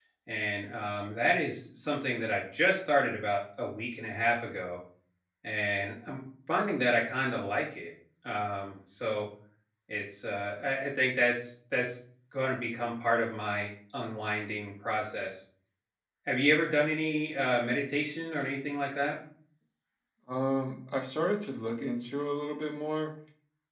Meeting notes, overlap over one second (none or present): none